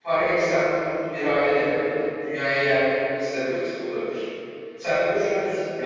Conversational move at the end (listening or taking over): taking over